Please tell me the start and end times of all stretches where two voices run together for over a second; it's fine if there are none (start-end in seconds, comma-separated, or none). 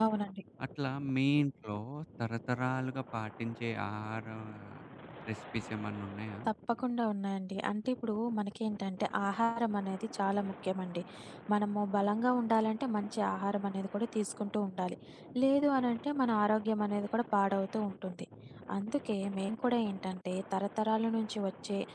none